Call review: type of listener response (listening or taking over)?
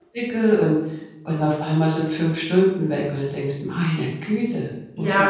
taking over